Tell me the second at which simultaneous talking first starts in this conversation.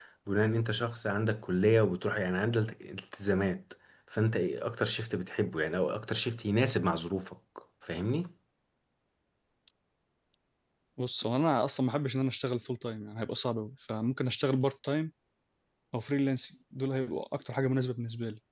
none

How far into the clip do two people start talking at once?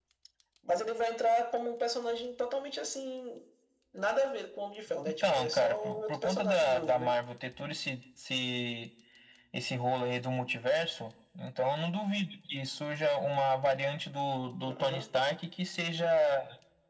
5.3 s

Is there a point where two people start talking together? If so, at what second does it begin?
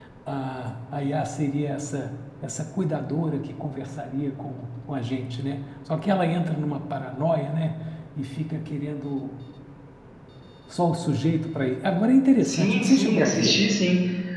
12.4 s

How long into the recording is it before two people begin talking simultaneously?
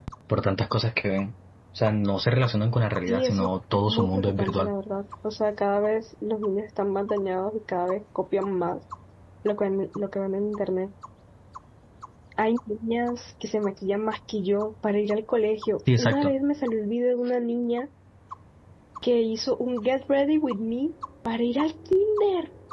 3.1 s

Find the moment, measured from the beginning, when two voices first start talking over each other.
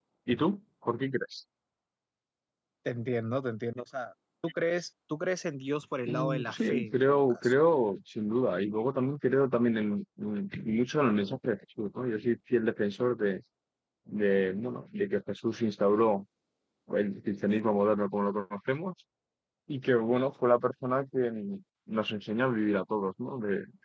6.0 s

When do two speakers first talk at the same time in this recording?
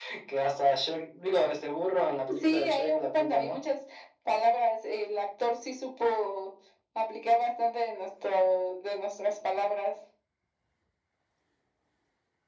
2.3 s

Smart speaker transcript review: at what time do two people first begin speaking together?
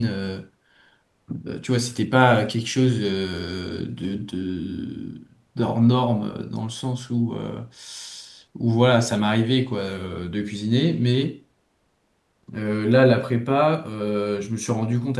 none

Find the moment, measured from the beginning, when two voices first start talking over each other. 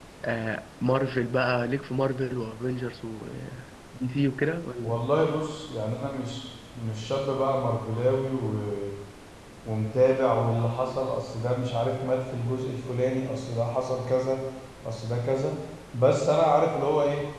none

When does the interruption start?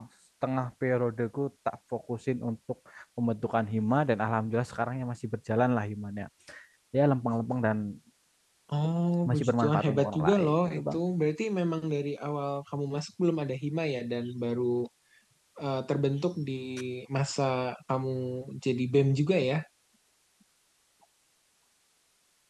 9.3 s

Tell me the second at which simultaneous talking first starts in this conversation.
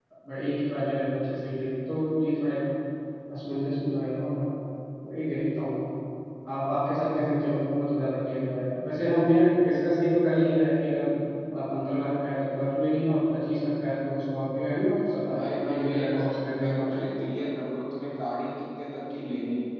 15.2 s

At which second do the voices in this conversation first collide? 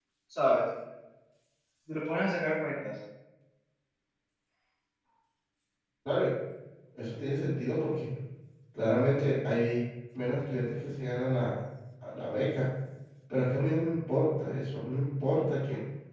none

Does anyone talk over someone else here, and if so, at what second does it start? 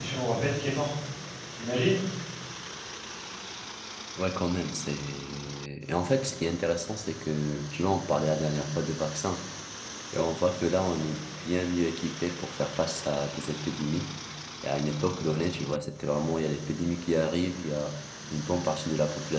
none

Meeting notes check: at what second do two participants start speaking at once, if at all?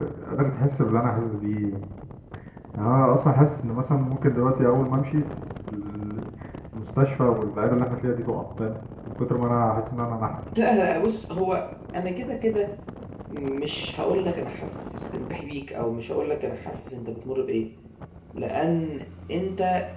none

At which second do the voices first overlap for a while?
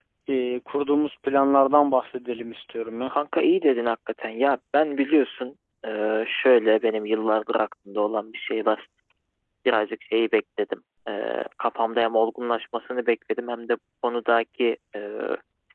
none

